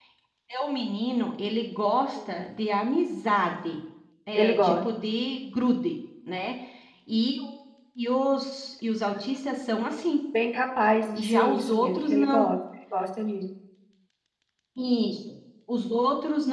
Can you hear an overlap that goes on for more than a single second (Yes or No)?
Yes